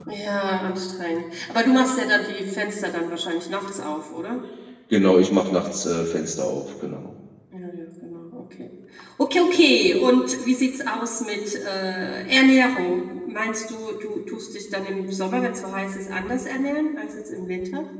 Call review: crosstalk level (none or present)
none